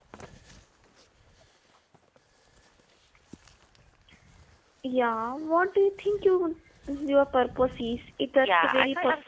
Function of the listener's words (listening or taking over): taking over